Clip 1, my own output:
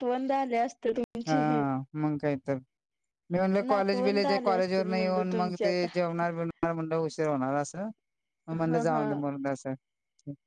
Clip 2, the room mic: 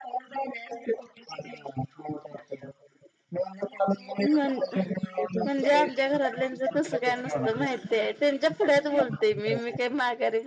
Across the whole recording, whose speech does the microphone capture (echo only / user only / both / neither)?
both